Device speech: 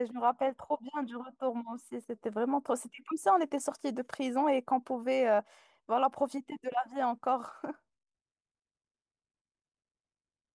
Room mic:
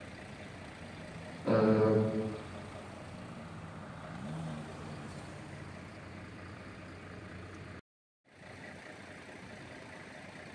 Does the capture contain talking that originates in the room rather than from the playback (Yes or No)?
Yes